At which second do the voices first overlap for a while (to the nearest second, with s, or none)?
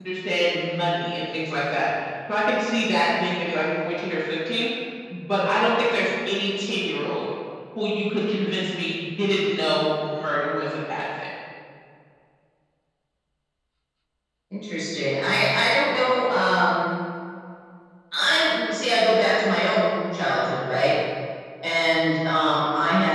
none